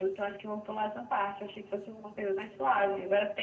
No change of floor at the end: Yes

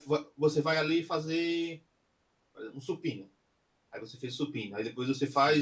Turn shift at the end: No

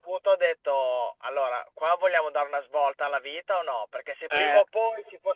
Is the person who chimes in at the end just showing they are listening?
Yes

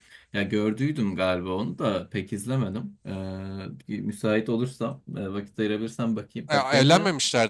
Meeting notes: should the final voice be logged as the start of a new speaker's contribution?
Yes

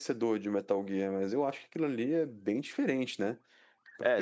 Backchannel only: No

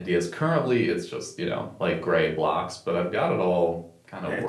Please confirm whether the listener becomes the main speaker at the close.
Yes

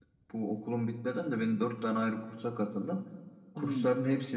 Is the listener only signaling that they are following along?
Yes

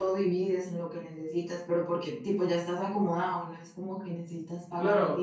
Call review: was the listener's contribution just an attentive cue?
No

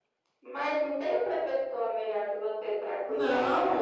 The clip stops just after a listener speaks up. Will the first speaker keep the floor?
No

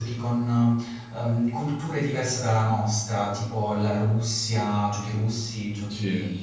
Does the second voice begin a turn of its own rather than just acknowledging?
No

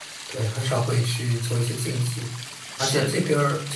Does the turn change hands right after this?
No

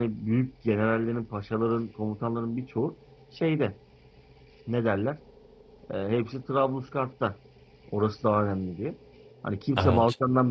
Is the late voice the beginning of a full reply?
No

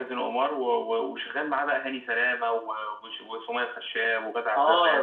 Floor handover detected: Yes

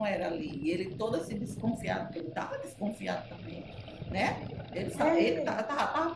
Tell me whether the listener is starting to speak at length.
No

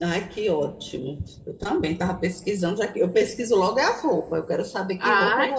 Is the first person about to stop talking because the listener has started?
Yes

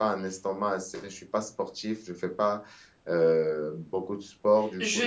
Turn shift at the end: Yes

